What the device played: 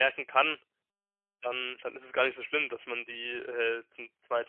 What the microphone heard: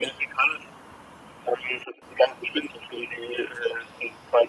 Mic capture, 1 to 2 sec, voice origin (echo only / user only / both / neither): echo only